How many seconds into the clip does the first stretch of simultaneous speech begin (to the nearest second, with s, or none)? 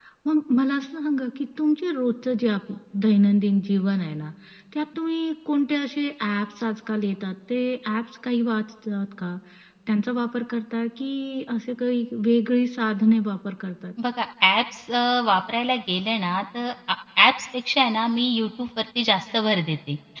none